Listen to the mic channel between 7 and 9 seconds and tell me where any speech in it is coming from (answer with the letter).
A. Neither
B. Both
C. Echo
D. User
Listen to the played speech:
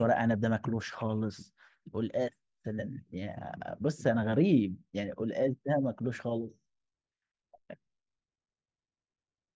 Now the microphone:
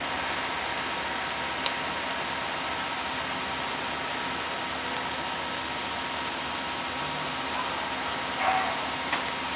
A